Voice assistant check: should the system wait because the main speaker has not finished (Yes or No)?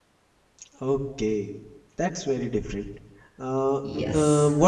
Yes